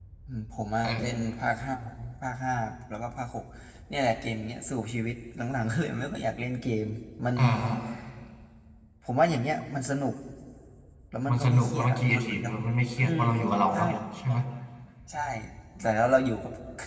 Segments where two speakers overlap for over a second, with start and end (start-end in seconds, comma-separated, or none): 11.3-12.5